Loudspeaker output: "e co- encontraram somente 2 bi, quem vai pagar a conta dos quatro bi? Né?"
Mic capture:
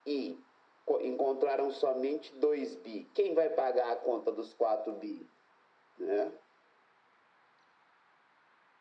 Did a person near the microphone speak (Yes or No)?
No